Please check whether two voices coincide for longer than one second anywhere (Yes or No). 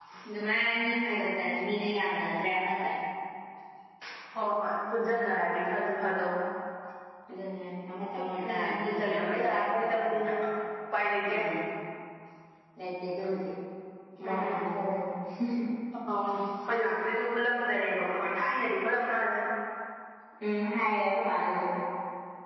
Yes